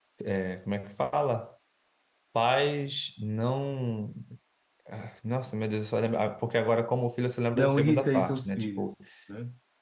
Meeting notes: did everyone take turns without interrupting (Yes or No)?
No